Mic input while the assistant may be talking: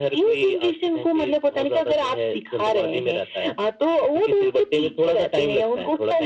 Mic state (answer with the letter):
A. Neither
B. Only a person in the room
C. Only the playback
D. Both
C